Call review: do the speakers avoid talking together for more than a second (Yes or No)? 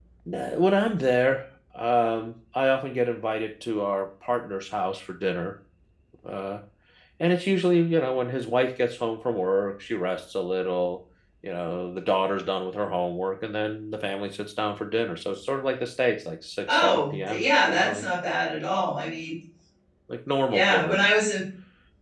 No